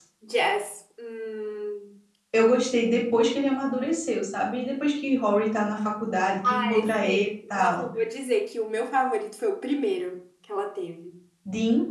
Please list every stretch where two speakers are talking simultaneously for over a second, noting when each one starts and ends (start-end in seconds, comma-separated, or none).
6.5-7.9